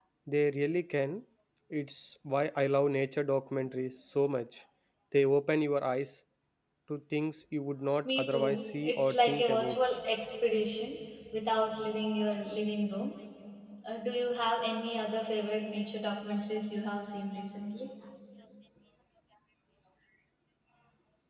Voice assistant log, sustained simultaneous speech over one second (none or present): present